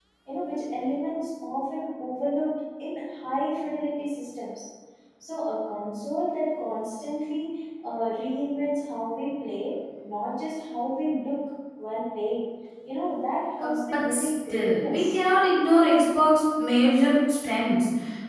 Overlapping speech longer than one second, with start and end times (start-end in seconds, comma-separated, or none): 13.6-15.1